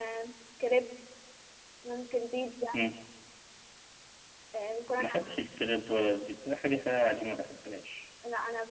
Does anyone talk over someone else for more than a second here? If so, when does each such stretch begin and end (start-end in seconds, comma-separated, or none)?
none